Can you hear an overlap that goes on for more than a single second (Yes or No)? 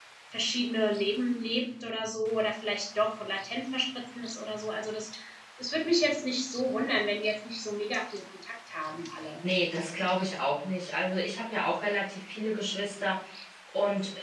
No